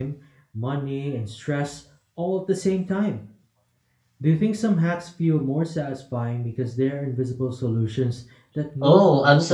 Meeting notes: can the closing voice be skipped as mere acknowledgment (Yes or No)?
No